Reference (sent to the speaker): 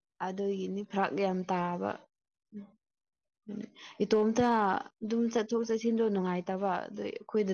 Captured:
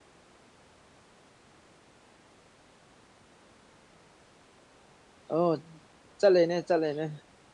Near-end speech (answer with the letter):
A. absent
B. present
B